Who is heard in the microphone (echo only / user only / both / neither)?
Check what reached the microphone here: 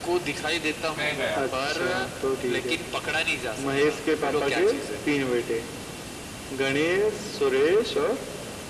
both